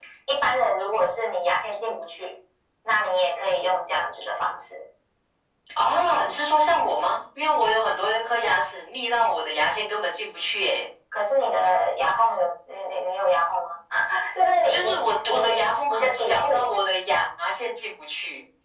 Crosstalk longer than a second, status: present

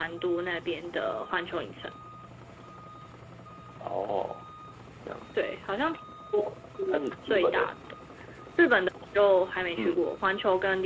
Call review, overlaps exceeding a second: none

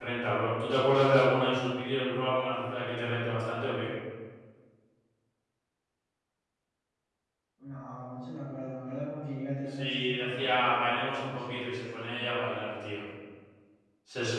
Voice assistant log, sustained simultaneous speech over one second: present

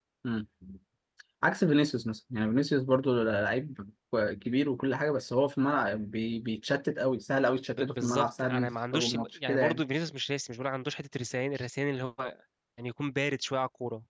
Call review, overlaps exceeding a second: present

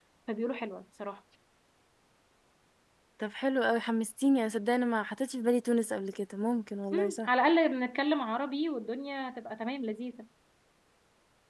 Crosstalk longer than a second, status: none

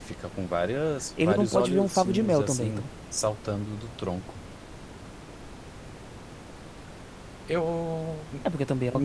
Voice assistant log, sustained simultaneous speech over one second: present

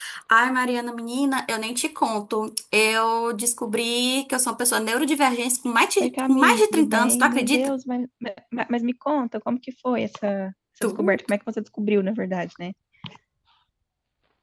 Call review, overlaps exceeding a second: present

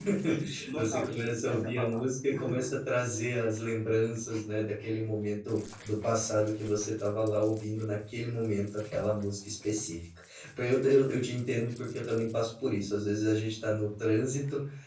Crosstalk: present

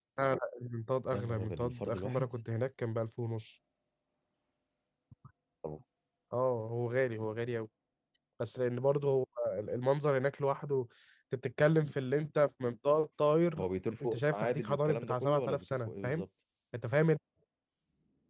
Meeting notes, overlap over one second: present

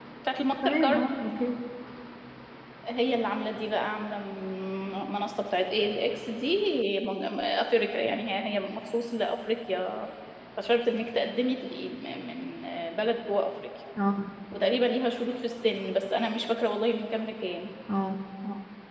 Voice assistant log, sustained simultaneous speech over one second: none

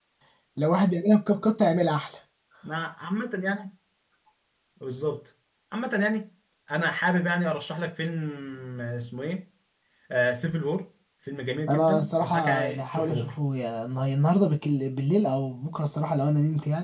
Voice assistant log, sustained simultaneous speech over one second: present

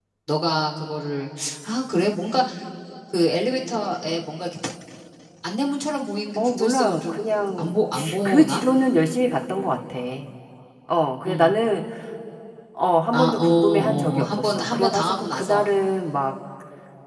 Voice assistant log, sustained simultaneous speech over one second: present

